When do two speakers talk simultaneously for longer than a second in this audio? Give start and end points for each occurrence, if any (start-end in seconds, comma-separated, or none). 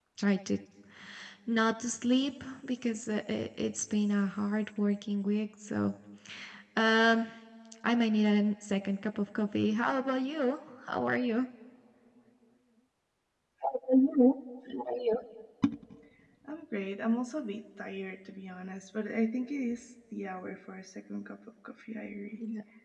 none